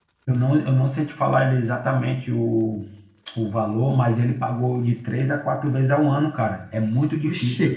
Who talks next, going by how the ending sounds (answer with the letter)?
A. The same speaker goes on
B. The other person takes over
B